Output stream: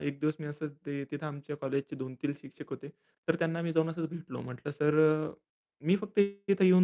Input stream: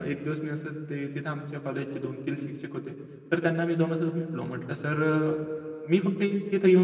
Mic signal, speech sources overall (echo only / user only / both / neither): echo only